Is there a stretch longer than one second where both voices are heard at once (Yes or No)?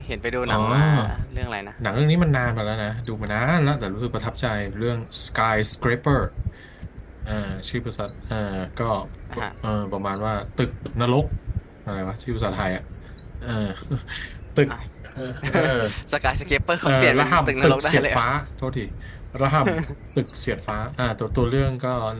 Yes